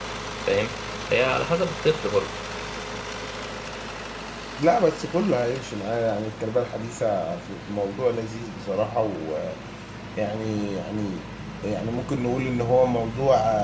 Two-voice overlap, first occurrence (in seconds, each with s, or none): none